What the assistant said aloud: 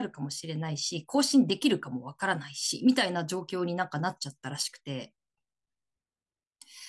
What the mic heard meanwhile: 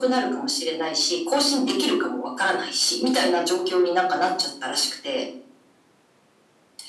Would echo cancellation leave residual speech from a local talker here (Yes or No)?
No